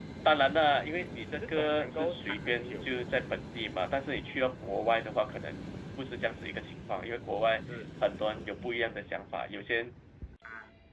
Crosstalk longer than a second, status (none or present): present